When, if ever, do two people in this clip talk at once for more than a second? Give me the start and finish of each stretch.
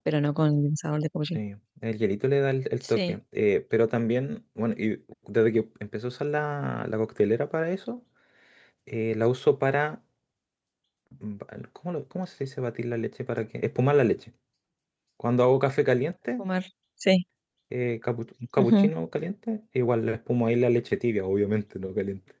none

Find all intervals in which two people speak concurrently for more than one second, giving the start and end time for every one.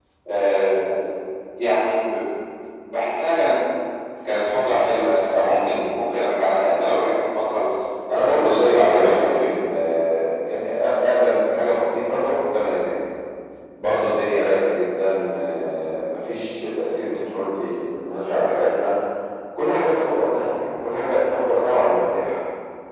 8.2-9.5

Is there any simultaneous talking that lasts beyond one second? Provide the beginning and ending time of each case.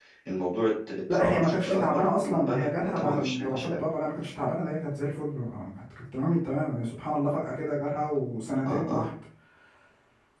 1.1-3.9

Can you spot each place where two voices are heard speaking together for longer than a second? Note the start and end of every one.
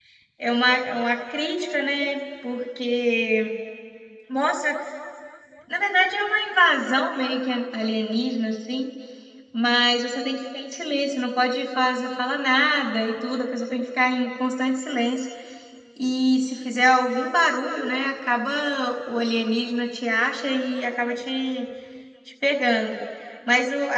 none

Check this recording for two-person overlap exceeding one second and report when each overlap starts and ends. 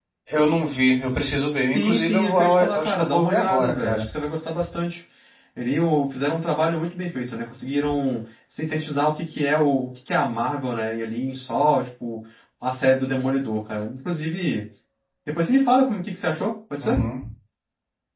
1.7-4.1

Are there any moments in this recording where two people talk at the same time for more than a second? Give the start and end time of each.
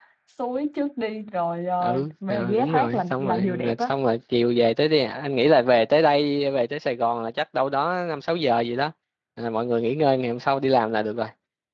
1.8-3.9

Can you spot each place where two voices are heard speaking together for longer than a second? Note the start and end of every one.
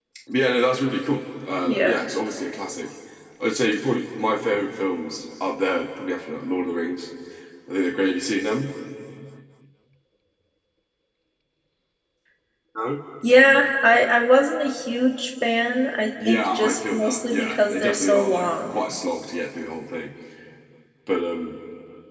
16.3-18.8

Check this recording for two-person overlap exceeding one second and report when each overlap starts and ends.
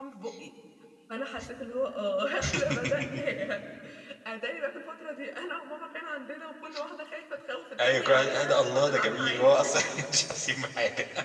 7.8-9.6

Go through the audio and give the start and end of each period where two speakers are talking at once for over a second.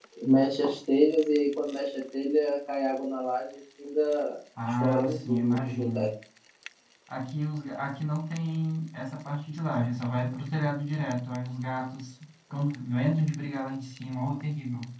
4.8-6.1

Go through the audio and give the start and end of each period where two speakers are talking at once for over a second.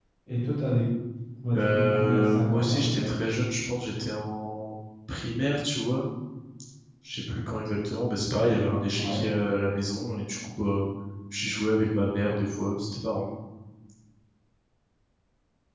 1.5-3.1

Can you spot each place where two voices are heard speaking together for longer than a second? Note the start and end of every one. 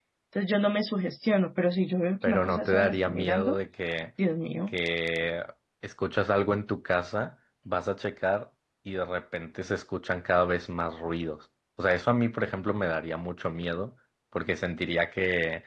2.2-3.6

